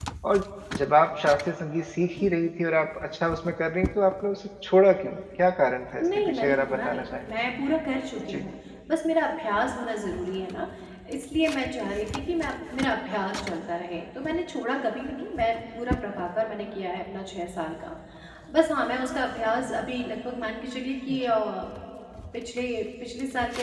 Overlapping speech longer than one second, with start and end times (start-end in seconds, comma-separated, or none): 6.0-7.2